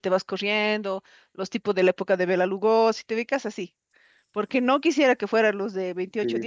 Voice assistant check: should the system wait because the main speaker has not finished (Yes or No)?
Yes